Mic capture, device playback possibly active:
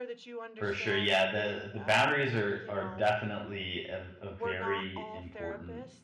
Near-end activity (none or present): present